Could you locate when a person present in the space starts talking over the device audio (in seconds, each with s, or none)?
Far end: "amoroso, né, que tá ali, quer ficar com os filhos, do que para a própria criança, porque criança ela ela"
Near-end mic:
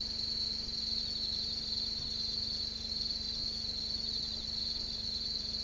none